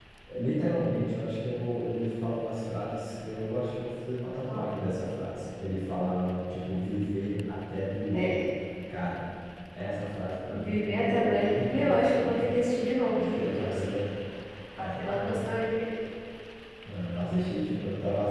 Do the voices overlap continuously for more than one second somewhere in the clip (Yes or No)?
Yes